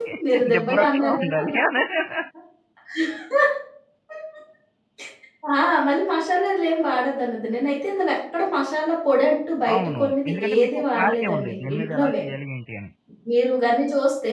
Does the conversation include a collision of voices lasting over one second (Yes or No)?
Yes